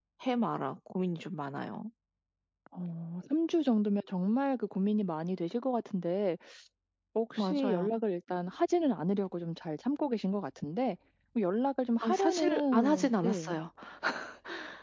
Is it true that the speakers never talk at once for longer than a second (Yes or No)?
No